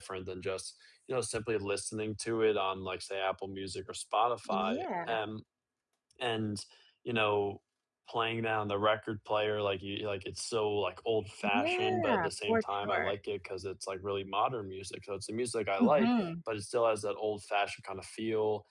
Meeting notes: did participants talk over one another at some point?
Yes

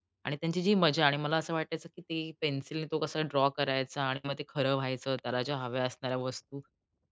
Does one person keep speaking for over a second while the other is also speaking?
No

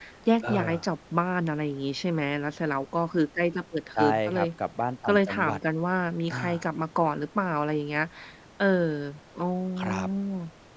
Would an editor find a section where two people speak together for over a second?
No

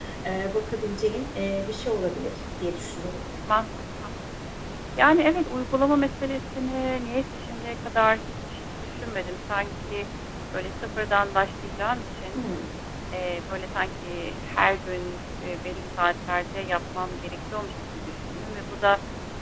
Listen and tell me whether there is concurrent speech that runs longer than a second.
No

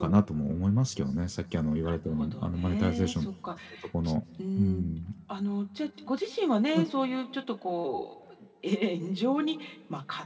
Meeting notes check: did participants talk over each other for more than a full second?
Yes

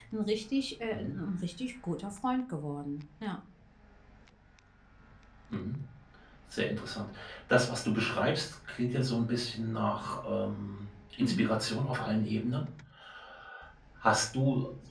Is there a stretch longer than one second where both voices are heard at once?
No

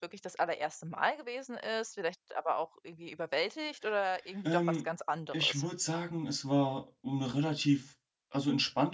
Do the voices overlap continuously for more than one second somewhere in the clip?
No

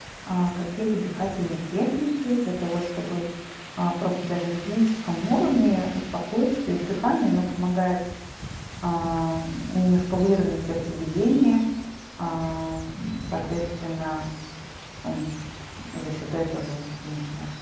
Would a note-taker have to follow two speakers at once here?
No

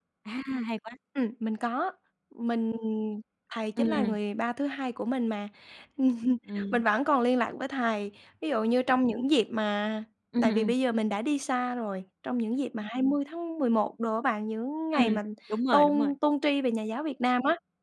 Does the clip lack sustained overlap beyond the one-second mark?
Yes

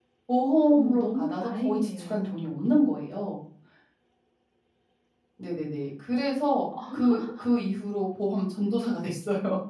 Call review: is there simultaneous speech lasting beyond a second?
Yes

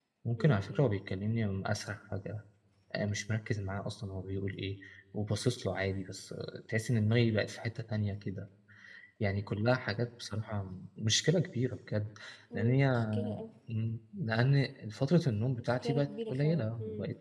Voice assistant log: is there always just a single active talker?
No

